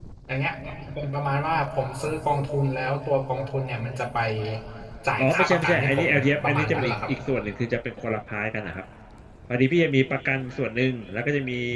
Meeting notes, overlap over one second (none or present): present